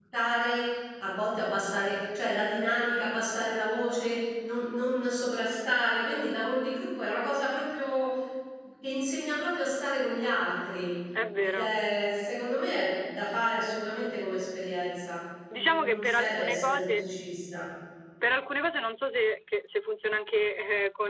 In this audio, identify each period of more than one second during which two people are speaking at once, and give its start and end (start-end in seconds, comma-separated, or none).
15.5-17.0